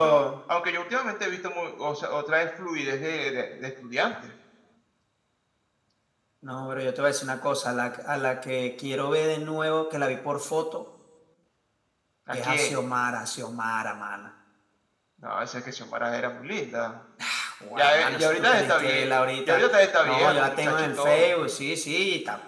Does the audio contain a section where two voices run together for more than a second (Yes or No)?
Yes